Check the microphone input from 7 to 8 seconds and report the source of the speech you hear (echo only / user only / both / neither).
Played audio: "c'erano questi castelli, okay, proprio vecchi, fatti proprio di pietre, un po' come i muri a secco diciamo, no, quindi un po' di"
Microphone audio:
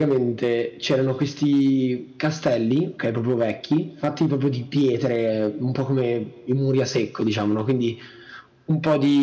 echo only